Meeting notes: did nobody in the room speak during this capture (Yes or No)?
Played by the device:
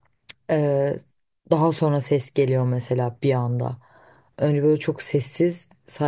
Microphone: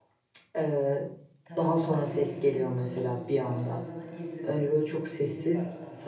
No